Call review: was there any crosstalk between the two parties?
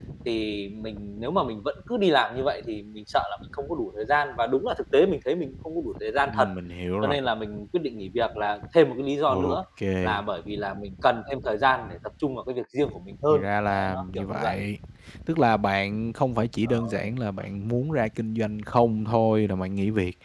Yes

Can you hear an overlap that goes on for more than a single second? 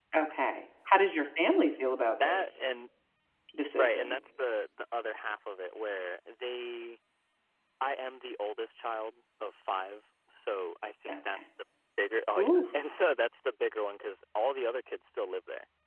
No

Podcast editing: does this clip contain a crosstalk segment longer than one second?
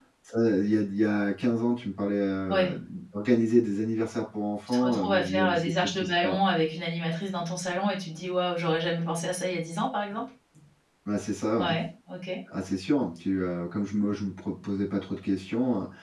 Yes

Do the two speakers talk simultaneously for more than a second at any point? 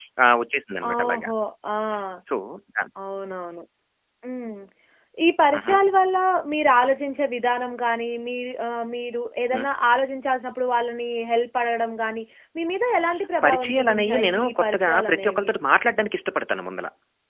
Yes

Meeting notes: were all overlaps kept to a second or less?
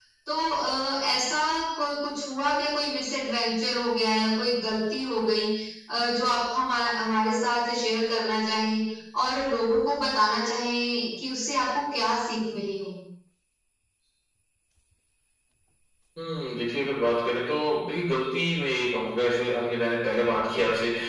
Yes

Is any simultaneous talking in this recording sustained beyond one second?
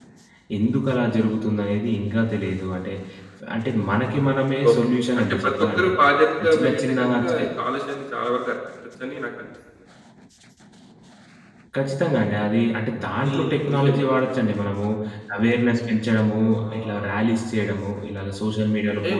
Yes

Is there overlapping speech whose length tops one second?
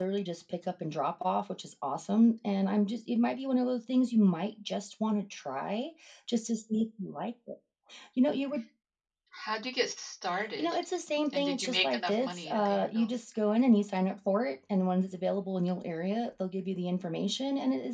Yes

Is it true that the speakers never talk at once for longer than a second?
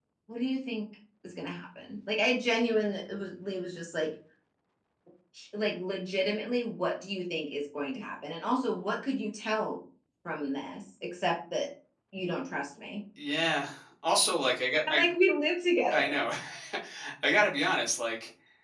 Yes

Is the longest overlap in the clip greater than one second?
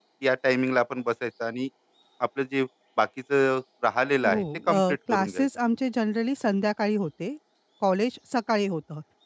Yes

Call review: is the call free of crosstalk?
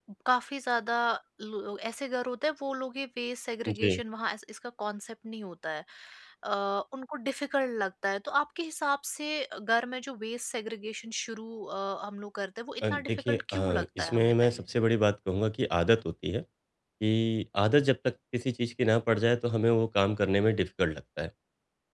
No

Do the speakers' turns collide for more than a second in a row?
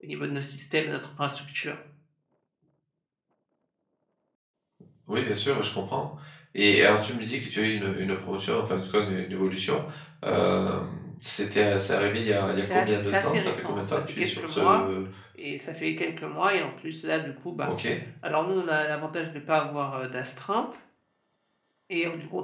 Yes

